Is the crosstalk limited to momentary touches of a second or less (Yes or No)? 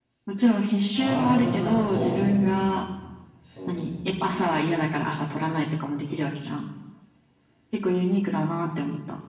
No